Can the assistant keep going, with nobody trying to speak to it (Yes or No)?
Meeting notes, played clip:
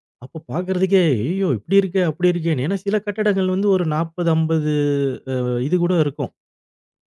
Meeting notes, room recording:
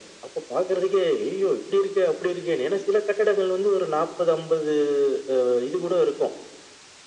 Yes